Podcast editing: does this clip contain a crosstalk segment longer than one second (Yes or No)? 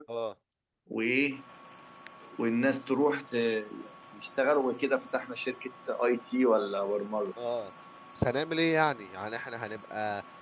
No